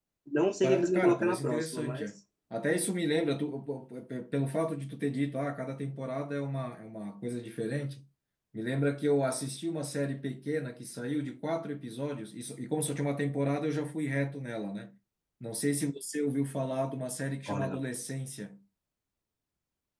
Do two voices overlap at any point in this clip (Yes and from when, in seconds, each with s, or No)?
Yes, from 0.6 s